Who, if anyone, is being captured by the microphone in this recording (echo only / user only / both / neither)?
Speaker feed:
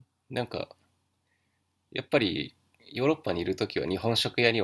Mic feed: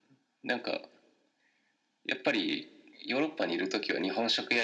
echo only